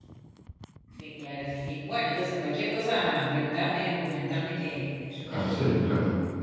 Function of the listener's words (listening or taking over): taking over